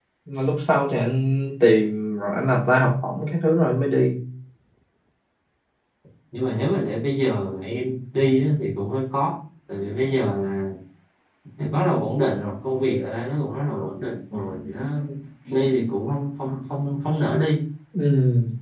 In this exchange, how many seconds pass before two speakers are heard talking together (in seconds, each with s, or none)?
none